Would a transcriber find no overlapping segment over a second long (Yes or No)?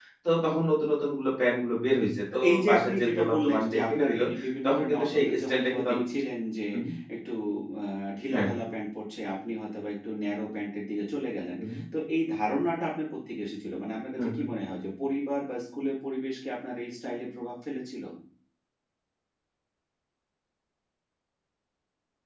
No